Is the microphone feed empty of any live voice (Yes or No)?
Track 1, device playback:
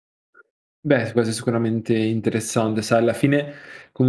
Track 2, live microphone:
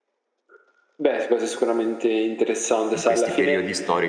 No